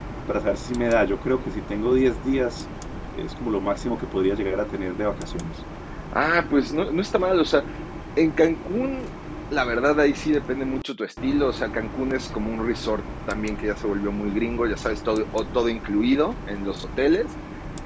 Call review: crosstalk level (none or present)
none